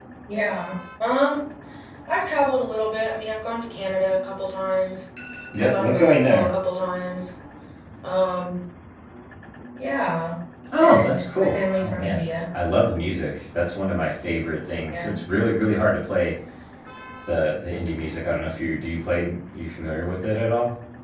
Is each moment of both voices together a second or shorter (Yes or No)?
No